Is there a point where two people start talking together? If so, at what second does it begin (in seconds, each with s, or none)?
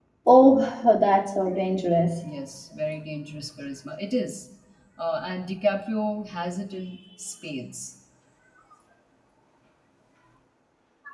none